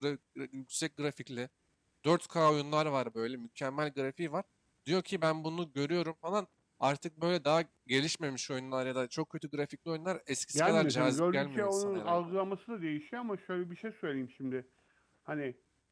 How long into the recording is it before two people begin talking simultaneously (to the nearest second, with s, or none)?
11 s